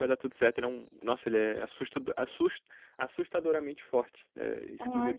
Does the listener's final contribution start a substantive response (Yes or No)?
Yes